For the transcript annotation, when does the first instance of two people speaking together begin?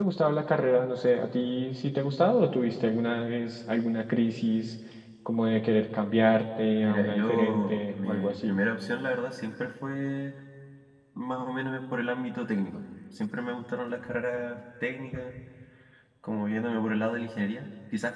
6.8 s

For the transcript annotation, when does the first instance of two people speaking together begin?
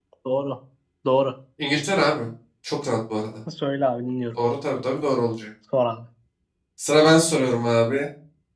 none

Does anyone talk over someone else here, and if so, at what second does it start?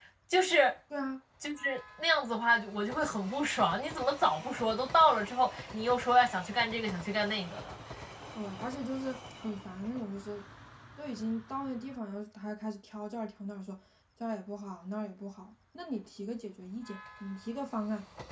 none

